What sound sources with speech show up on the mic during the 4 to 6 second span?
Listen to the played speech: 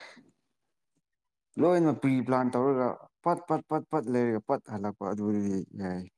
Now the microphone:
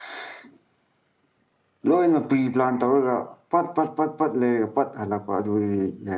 echo only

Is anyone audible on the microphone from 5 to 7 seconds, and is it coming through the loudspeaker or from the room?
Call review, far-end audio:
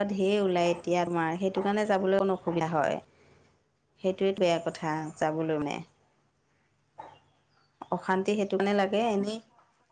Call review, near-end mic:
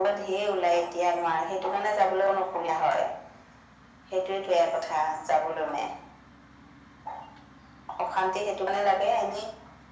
echo only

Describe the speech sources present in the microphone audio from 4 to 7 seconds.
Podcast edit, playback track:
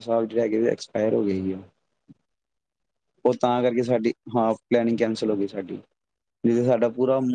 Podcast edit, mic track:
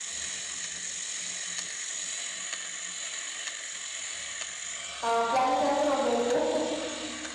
user only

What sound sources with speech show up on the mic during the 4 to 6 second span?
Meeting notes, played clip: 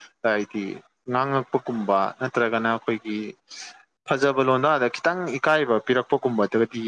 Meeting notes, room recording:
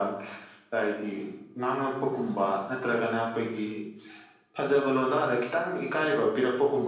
echo only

